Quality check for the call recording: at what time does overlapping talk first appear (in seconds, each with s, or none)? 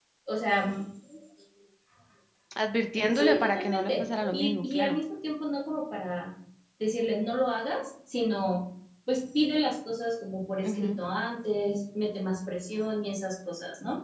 3.1 s